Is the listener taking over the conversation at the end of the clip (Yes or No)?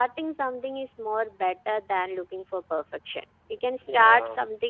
No